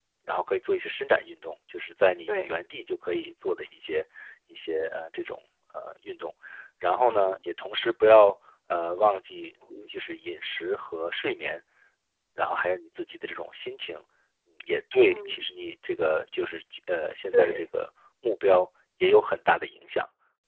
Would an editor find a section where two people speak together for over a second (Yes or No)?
No